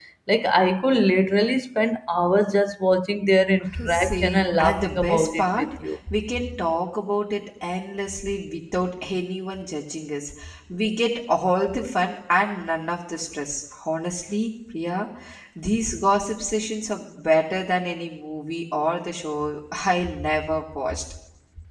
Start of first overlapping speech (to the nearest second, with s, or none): 4 s